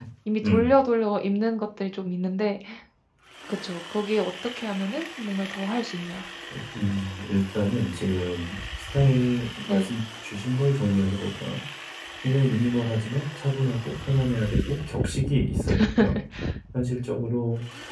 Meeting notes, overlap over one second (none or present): none